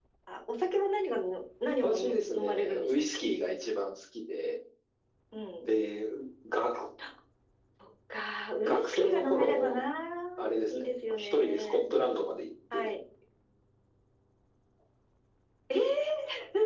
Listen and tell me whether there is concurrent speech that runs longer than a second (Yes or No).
Yes